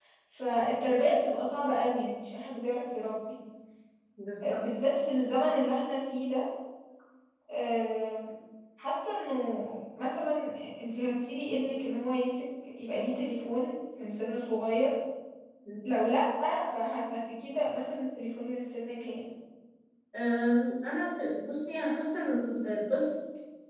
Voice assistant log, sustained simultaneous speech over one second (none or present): none